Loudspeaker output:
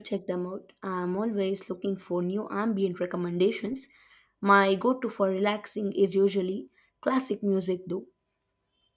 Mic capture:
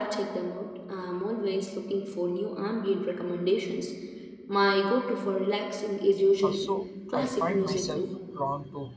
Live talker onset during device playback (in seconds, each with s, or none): 6.4 s